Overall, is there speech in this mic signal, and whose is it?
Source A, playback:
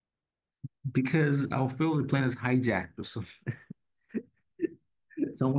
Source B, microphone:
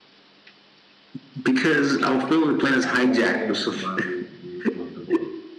both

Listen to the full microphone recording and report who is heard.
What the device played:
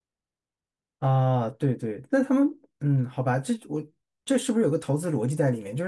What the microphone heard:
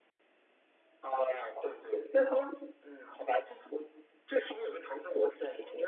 echo only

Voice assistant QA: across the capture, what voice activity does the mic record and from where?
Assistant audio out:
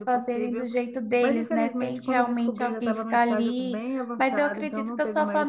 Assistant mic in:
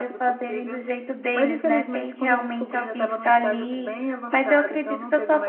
echo only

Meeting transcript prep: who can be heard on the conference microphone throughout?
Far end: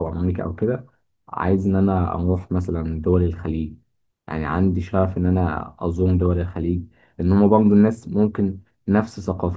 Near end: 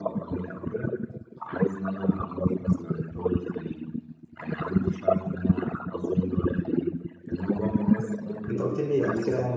both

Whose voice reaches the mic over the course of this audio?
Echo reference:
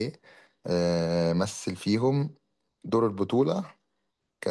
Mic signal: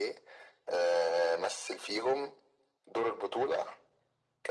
echo only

